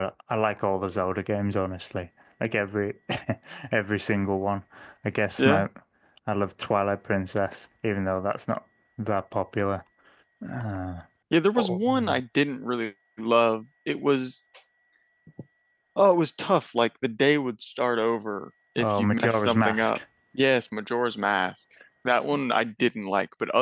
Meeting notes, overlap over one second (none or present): present